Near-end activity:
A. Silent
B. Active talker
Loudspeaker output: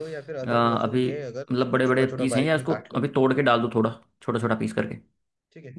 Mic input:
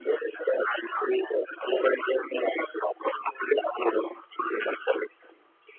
A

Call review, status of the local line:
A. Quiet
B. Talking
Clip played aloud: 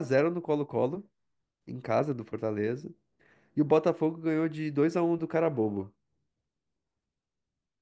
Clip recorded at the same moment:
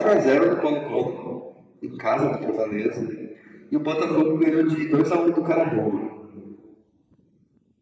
A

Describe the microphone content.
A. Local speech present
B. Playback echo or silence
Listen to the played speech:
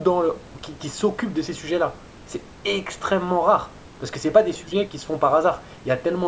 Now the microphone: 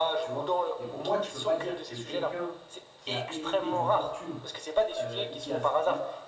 A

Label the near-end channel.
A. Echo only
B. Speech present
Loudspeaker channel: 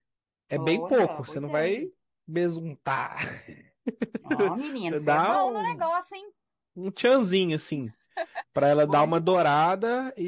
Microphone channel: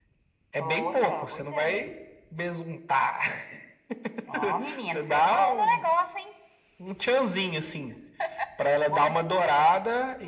A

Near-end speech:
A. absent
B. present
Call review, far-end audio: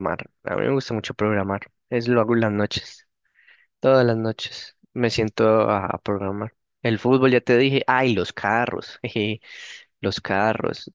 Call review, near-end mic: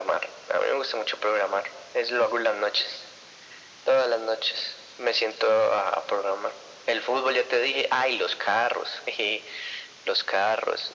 A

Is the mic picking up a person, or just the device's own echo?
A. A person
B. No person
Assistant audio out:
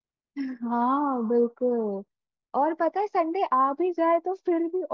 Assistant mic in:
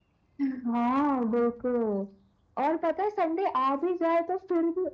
B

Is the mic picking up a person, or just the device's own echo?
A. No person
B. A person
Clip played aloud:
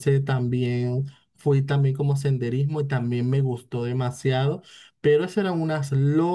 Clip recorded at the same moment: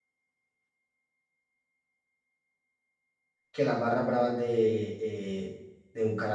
B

